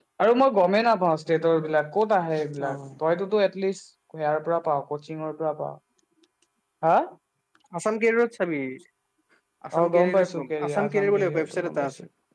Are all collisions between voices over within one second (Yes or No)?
No